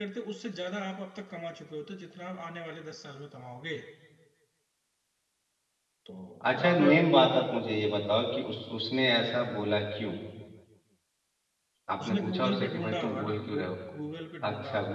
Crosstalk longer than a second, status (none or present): present